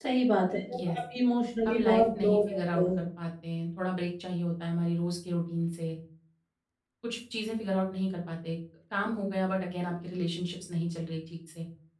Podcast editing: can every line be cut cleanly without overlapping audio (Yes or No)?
No